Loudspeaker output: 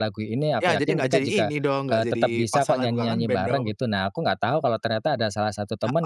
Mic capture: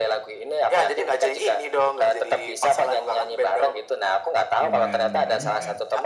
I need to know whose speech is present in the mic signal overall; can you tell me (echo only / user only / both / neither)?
both